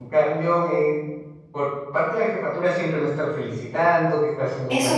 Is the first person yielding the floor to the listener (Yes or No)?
Yes